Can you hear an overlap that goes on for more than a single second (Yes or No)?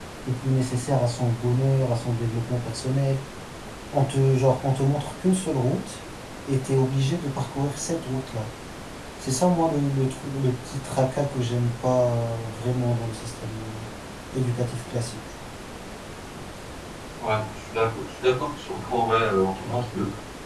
No